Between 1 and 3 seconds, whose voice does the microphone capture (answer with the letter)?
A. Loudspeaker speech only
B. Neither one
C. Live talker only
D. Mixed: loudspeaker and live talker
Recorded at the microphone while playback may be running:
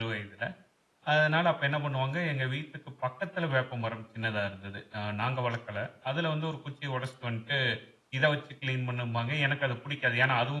C